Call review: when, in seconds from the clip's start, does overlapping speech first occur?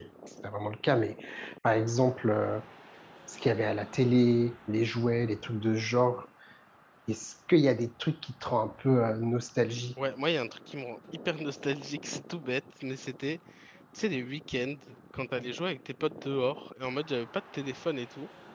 none

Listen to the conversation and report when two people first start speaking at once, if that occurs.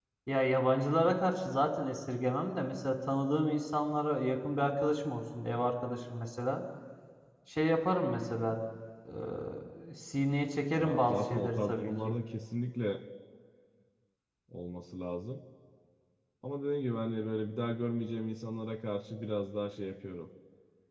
11 s

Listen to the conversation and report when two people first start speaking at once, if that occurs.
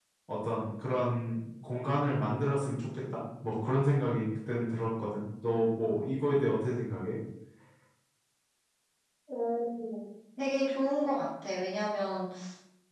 none

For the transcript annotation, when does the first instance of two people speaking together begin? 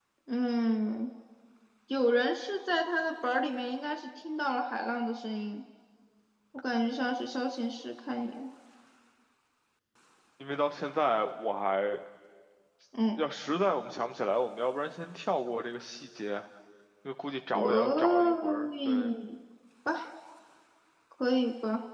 18 s

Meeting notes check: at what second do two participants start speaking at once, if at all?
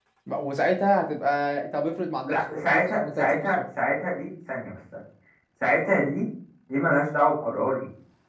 2 s

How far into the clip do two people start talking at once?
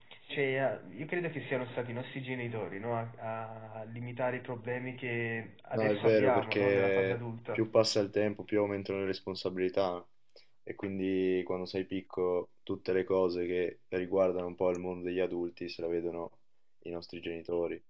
6 s

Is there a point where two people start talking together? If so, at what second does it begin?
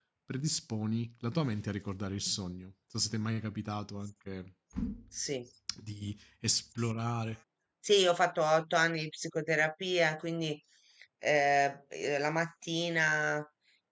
none

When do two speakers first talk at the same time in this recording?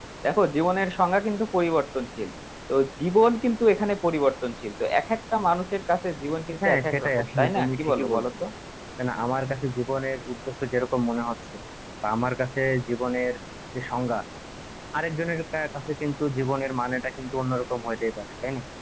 7 s

